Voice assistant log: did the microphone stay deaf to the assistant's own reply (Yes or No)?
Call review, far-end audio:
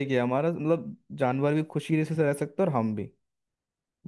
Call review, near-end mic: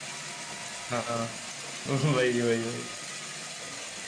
Yes